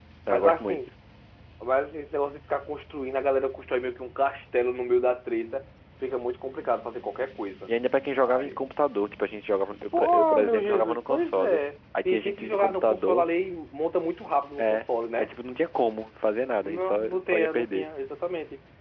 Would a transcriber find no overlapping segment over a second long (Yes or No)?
No